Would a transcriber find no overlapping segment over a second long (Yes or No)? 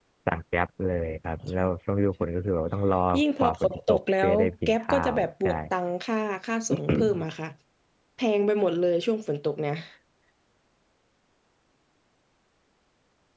No